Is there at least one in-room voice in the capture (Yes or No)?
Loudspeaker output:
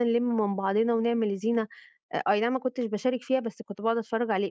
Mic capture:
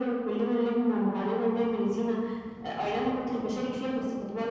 No